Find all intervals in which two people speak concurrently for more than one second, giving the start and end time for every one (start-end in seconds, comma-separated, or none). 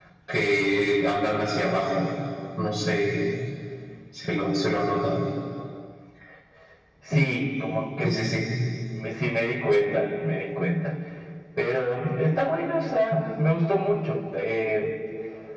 none